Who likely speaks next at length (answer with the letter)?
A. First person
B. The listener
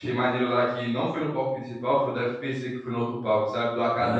B